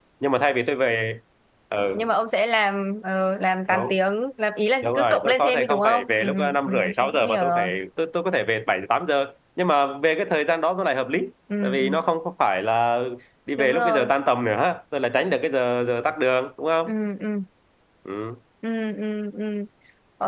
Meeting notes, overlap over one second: present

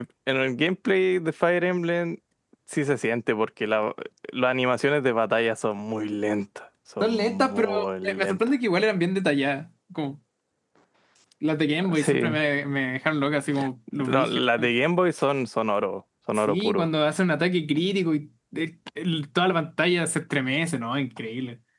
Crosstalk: present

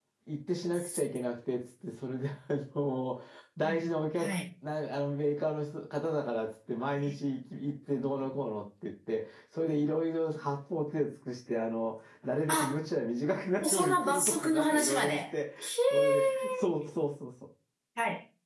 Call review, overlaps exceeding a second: present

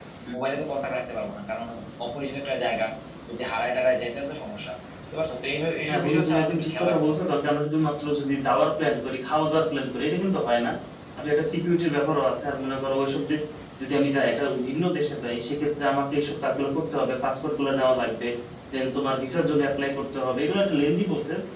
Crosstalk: present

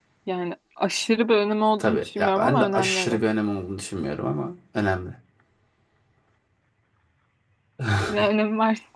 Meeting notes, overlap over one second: present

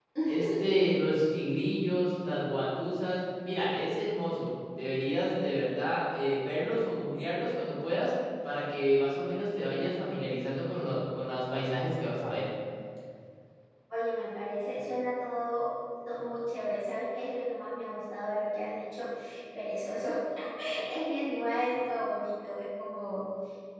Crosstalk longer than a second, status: none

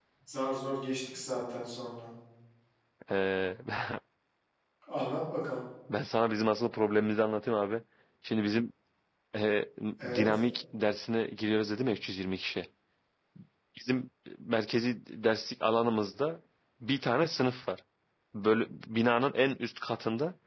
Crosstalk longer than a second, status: none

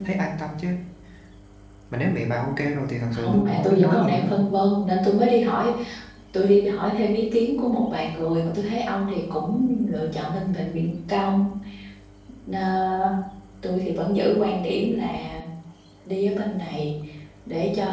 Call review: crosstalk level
present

